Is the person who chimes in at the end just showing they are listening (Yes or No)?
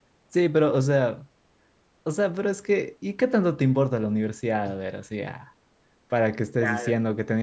Yes